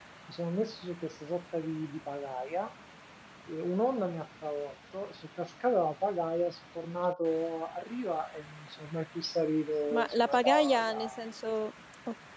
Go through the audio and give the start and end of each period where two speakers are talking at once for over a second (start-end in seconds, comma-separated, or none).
9.9-11.2